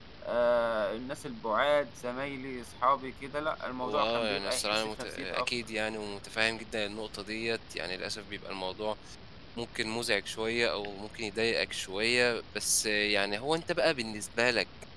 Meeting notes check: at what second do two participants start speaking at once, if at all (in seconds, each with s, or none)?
3.8 s